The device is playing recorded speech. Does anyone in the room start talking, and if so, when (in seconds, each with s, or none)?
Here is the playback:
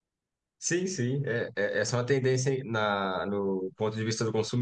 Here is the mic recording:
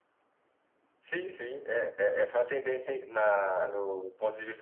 none